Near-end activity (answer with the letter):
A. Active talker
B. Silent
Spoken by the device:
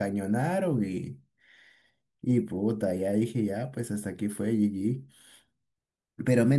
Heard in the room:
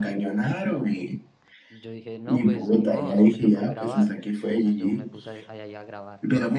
A